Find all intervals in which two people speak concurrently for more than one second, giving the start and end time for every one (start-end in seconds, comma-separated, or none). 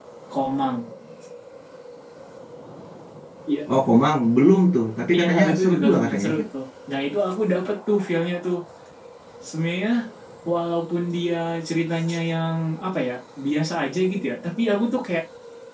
5.1-6.5